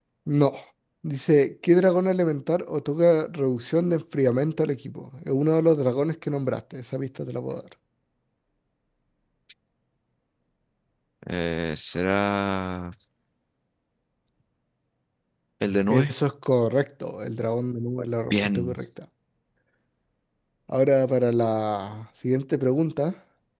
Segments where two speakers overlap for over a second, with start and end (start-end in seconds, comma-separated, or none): none